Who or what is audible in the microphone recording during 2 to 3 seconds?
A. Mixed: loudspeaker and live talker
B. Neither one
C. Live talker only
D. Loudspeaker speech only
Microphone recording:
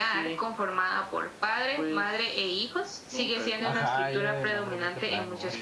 D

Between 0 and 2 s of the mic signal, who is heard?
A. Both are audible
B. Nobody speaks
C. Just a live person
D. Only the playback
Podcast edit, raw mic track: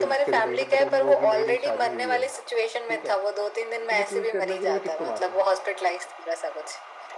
A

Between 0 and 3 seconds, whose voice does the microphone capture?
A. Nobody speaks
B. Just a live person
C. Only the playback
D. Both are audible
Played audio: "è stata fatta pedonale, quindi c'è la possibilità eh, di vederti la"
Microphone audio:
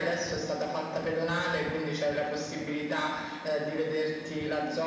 C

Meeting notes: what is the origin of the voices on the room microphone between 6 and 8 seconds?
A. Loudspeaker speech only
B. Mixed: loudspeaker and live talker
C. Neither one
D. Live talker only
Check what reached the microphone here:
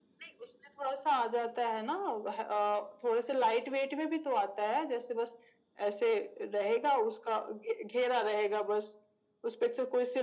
A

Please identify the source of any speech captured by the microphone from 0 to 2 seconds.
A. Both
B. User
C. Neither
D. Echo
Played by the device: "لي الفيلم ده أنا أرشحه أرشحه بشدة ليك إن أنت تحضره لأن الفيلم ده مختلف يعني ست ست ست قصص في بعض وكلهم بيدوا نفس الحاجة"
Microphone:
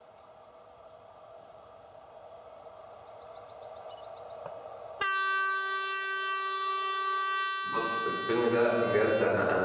C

